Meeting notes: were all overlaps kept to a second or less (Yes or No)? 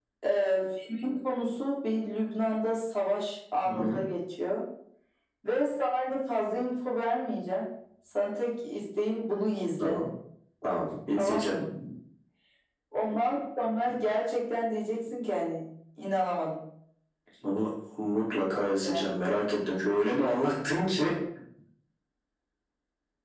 Yes